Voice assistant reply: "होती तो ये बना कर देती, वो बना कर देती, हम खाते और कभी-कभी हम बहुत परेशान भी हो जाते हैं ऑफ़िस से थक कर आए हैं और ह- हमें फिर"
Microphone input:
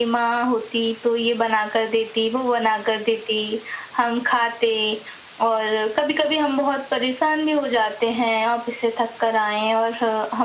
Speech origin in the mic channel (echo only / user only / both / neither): echo only